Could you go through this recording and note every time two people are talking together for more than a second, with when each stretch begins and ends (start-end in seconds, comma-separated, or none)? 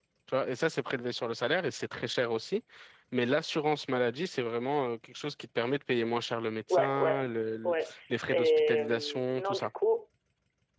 8.3-9.7